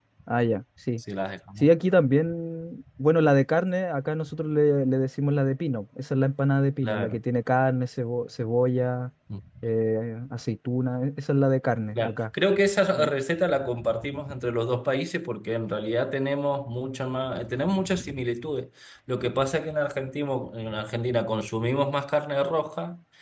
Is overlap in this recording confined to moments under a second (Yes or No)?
Yes